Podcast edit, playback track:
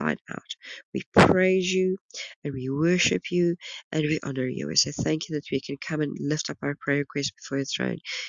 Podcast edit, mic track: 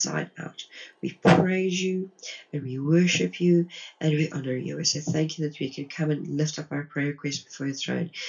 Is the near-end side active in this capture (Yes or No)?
No